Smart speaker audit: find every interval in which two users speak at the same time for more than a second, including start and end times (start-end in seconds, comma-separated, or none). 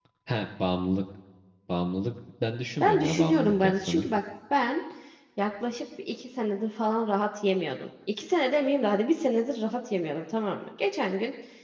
2.8-4.1